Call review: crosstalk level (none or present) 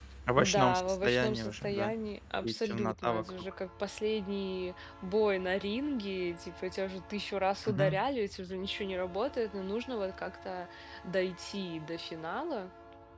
present